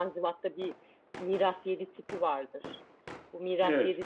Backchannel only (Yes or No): Yes